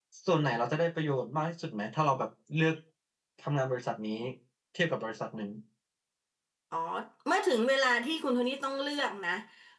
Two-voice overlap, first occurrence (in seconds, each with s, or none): none